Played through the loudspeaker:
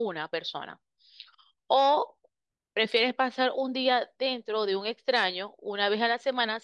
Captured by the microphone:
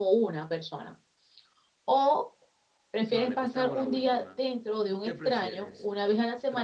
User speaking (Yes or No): Yes